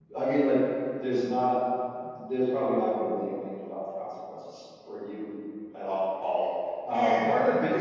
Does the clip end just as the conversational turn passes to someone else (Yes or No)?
No